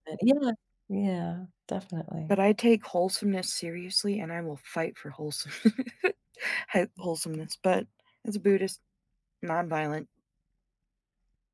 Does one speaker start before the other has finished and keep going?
No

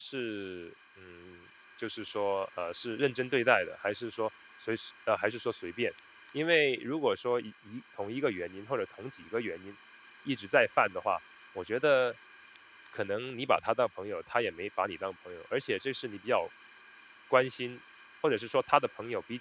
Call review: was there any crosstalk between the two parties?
No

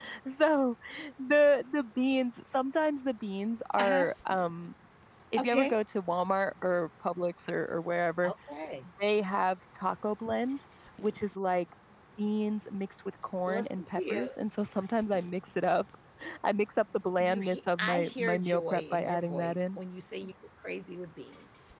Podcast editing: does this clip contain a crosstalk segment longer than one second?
Yes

